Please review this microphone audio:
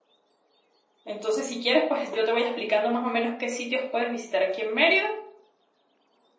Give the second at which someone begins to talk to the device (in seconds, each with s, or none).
1.0 s